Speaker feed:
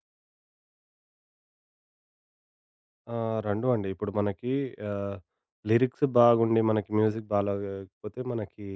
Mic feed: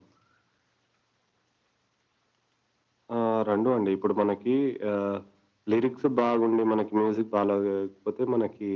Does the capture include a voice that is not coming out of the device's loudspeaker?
No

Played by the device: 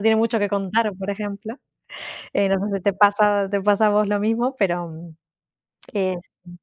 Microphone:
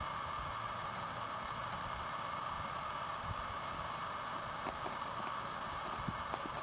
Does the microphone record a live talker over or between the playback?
No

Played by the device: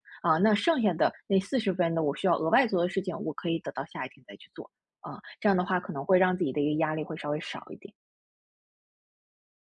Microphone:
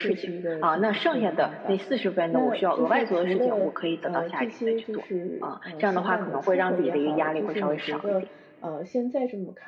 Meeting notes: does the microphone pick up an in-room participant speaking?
Yes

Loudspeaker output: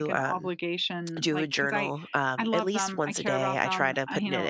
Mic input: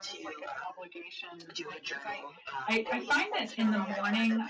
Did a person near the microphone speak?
Yes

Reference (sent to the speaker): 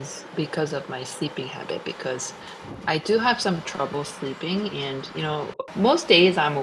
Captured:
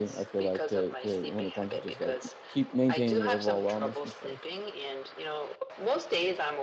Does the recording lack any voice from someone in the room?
No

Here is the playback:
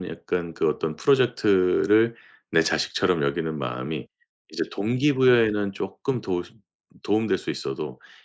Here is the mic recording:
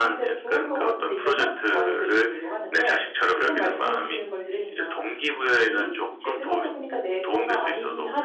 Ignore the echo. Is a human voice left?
Yes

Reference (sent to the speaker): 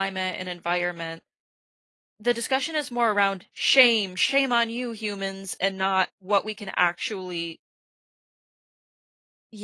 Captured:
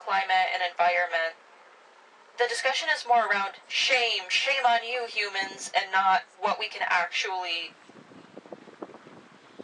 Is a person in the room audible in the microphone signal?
No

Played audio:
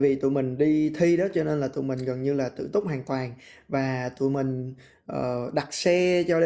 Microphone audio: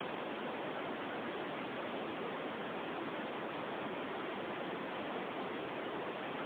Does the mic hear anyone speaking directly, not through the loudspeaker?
No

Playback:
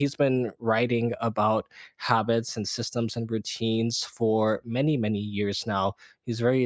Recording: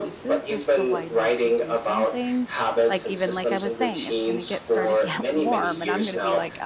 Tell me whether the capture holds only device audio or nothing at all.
No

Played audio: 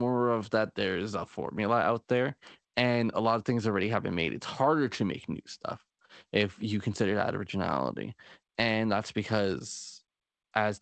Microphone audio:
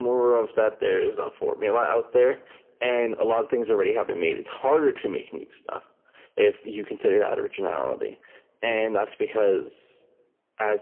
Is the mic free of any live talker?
Yes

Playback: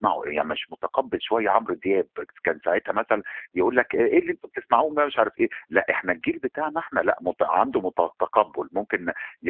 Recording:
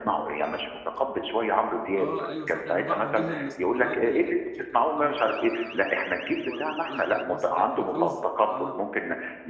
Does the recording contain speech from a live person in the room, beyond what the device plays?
Yes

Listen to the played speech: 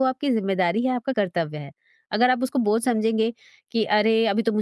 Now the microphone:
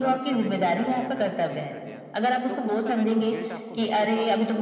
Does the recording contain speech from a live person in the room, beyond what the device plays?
Yes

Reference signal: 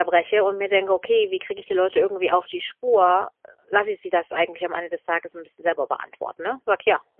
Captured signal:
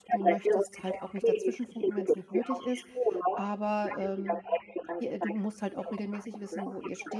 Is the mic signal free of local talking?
No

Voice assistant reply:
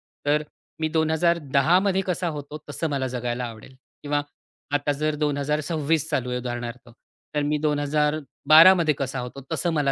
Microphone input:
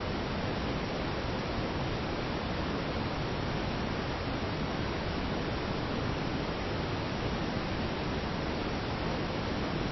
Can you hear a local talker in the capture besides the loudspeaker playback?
No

